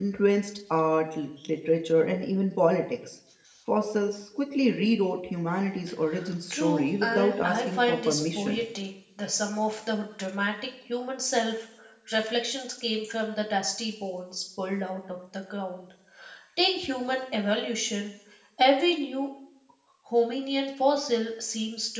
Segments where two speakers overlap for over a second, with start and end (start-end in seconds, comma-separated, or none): 6.5-8.6